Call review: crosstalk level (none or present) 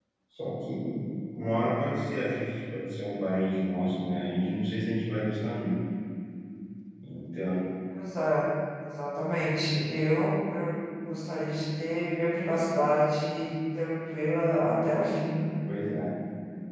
none